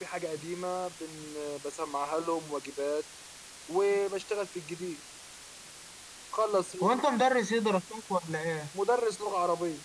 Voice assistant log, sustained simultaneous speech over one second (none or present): none